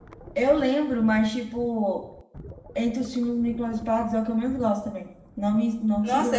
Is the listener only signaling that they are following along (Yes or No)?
No